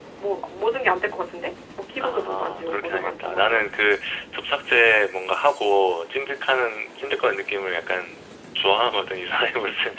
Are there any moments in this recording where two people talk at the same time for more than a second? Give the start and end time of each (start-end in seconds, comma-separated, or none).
2.0-3.6